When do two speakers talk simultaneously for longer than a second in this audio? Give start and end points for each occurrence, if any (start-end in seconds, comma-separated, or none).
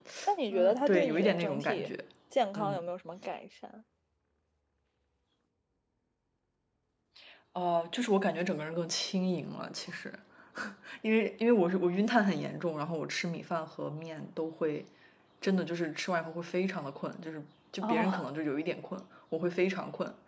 0.5-1.9